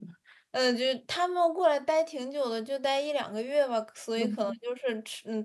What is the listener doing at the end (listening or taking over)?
listening